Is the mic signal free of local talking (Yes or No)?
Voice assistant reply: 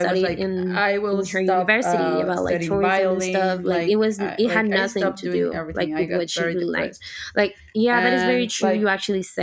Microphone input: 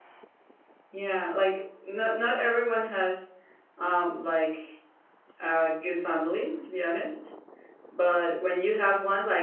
No